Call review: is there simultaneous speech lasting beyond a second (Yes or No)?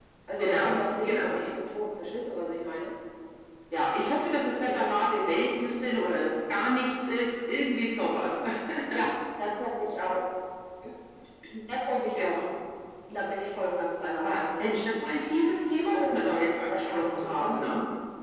Yes